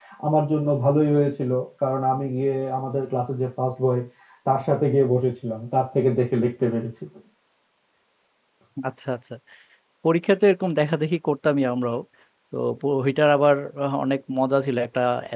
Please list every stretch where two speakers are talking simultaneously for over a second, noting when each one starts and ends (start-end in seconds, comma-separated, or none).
none